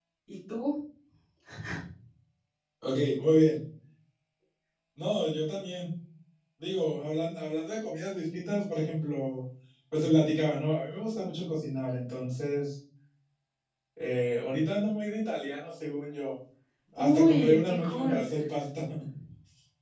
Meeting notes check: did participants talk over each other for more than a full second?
Yes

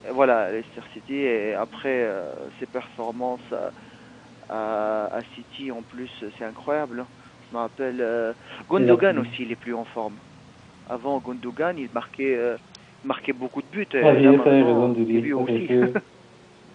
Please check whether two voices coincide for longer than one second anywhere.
Yes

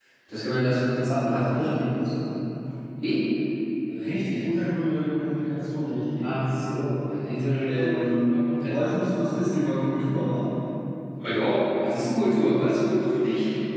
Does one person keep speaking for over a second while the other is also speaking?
Yes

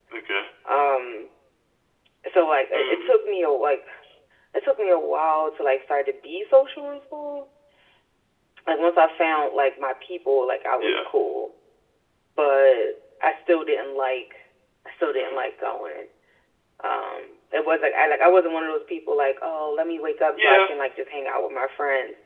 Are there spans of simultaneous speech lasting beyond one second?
No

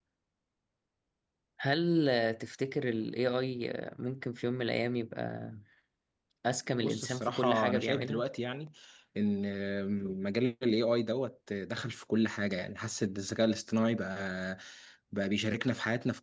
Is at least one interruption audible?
Yes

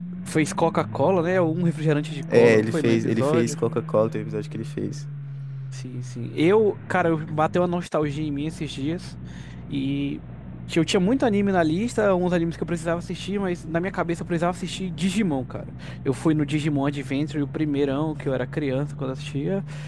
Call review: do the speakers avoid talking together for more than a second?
No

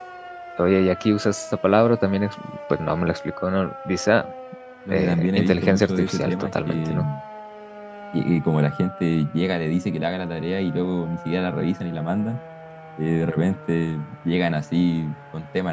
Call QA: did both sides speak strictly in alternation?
No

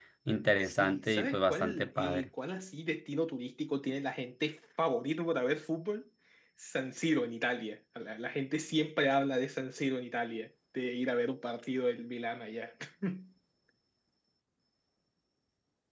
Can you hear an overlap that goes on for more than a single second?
Yes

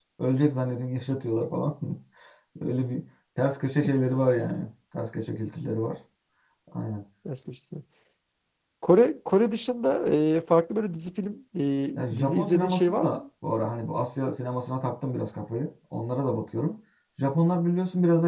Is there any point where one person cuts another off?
Yes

